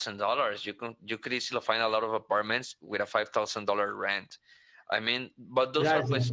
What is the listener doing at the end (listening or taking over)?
taking over